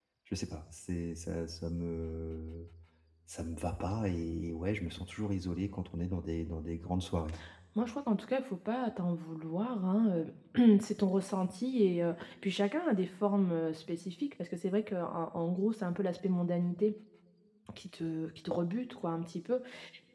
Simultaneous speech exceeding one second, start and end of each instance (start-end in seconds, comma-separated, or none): none